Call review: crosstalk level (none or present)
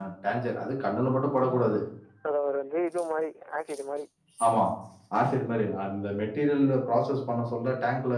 none